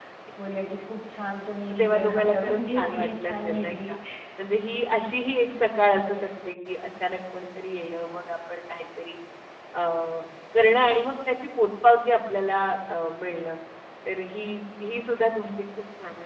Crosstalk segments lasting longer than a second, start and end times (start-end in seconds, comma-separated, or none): 1.7-3.9